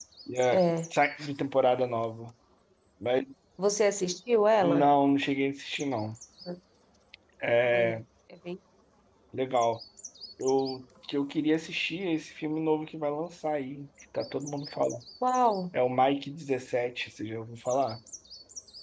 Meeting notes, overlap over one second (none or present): none